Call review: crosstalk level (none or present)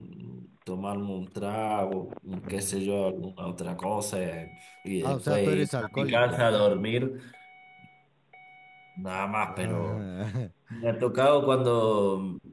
present